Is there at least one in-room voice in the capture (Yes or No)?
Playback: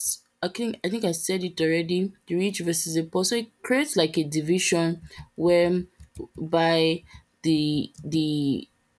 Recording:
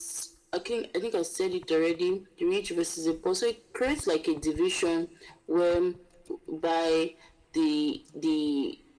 No